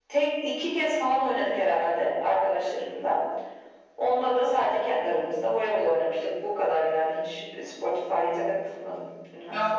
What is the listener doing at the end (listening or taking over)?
taking over